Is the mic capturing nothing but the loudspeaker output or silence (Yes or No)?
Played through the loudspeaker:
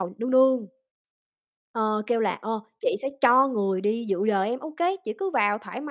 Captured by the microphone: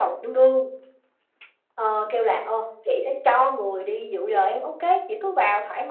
Yes